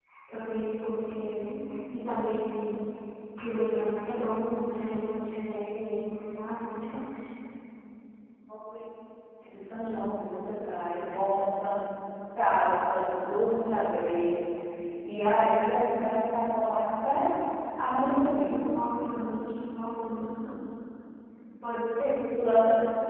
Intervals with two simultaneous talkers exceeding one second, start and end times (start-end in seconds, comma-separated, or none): none